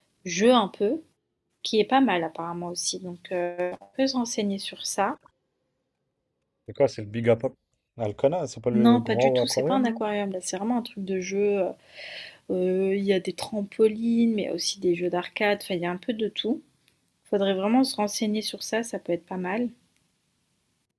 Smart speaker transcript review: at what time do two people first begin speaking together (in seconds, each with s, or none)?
8.7 s